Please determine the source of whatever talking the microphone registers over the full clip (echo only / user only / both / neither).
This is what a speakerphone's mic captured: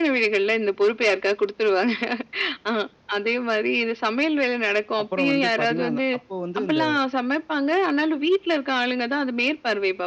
both